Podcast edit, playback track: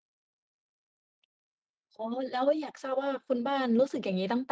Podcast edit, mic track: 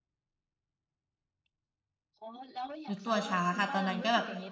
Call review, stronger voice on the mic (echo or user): user